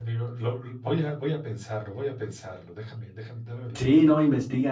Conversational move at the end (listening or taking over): taking over